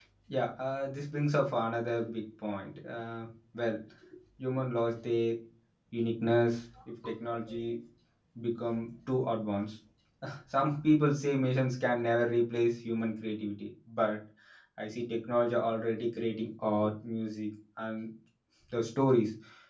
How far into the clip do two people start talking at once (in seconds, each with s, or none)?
none